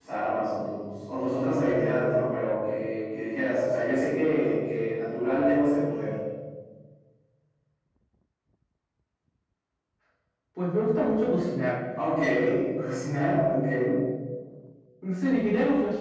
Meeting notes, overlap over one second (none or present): none